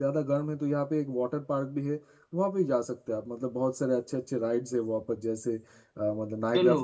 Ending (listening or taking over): listening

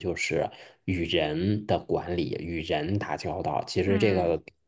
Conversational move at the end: listening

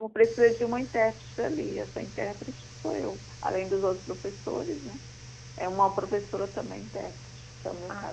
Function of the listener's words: taking over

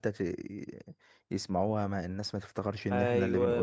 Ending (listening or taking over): taking over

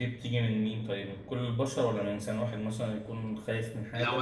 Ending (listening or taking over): taking over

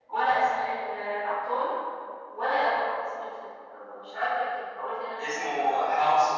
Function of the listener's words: taking over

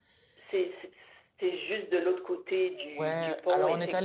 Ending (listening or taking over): taking over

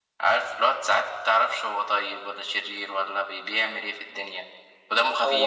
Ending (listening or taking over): listening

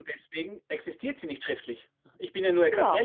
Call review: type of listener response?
taking over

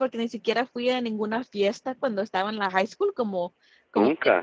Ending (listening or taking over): listening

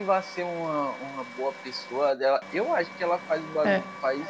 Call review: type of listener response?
listening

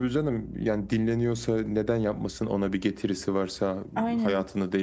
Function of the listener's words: listening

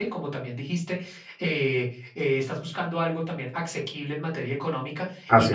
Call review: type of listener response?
listening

